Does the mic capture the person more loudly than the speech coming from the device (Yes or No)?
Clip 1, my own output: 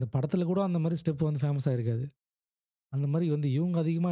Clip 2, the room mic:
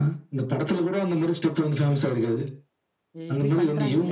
No